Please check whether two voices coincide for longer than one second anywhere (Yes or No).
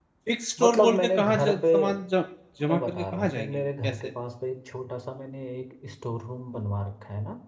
Yes